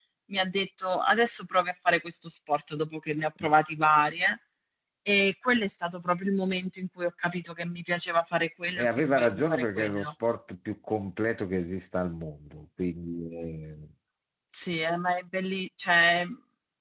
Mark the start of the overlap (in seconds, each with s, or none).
8.8 s